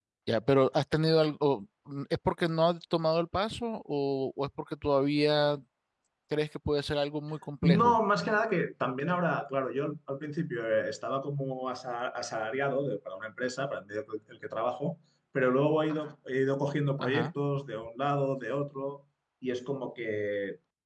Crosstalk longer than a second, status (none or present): none